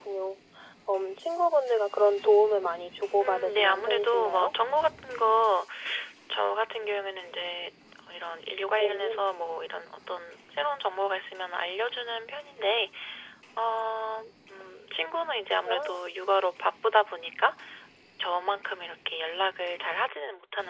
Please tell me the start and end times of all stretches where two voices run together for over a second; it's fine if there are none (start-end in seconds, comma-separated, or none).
3.2-4.5